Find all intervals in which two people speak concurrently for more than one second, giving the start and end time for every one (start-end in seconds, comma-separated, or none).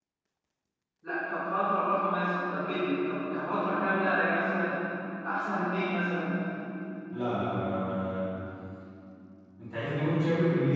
none